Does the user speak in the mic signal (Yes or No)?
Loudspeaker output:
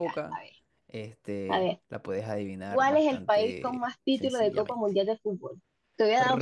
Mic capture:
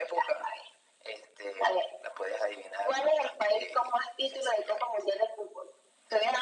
No